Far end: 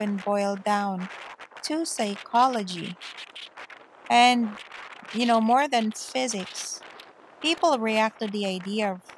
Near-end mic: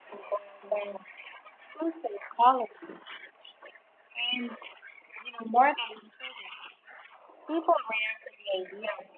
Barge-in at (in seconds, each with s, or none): none